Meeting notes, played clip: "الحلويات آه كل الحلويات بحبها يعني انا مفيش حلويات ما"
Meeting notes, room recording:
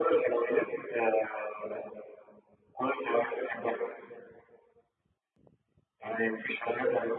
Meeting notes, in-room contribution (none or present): present